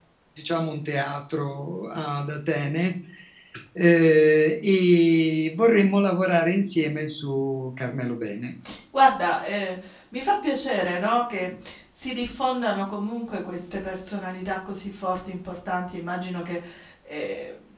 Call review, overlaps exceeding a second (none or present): none